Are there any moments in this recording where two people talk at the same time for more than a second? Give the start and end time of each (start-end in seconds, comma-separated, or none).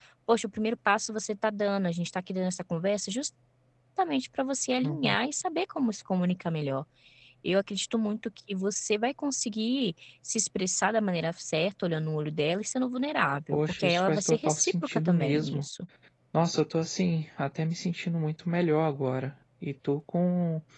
13.5-15.6